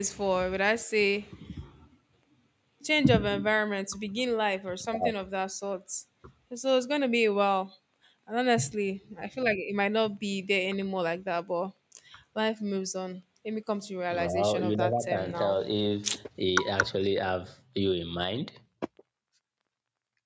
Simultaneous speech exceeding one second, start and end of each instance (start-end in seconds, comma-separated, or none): 14.1-15.6